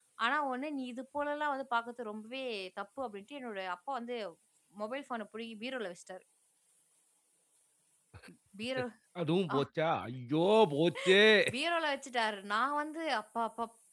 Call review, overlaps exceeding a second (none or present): none